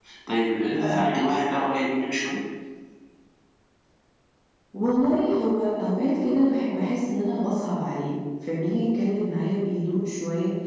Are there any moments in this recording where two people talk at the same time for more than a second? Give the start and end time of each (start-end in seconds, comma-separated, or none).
none